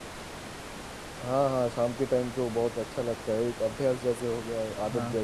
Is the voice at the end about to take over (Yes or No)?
Yes